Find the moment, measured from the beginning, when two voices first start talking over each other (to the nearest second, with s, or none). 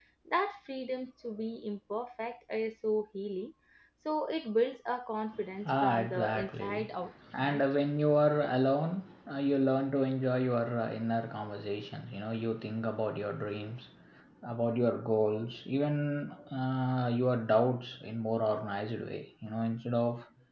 6 s